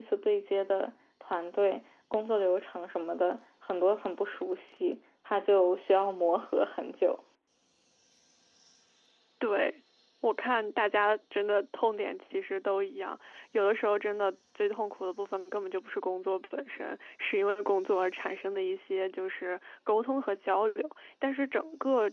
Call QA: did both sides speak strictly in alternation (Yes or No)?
Yes